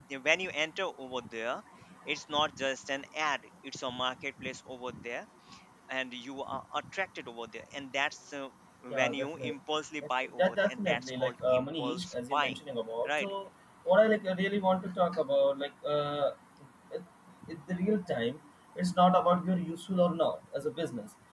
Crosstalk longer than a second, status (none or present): present